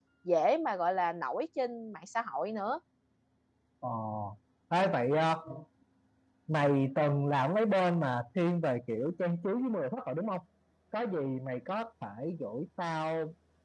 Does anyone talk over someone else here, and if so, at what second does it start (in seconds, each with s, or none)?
none